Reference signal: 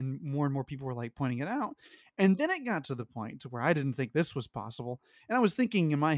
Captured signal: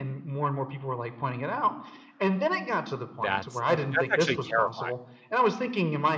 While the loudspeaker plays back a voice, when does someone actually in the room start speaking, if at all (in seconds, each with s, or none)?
3.2 s